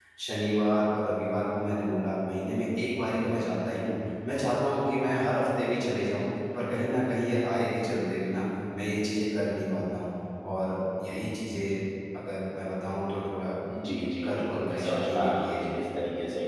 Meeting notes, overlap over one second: present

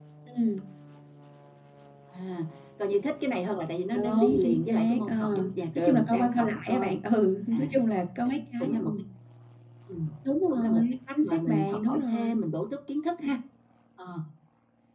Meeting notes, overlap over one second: present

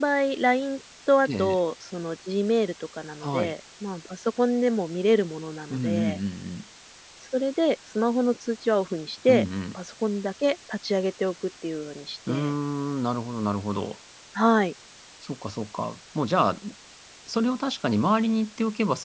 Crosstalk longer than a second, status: none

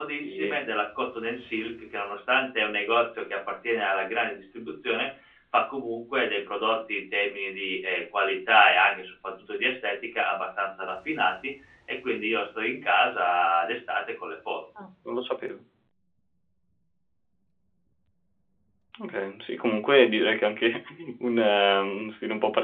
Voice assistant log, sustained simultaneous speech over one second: none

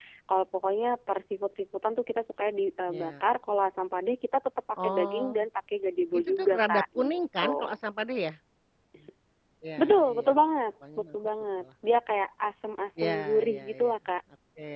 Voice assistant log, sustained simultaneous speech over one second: present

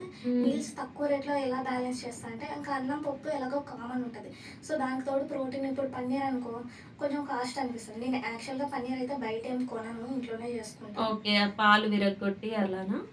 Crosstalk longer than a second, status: none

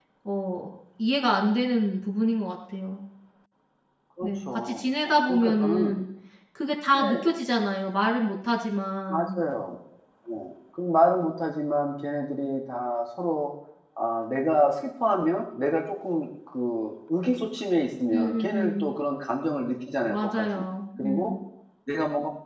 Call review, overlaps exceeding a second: present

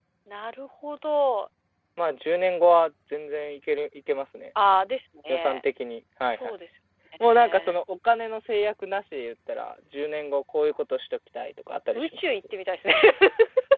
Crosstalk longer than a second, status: none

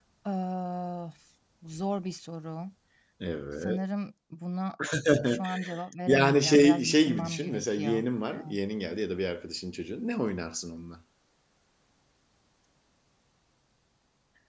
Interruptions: present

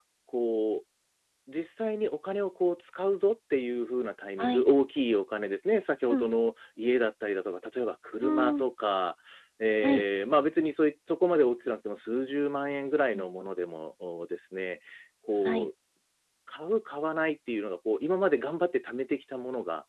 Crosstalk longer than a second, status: none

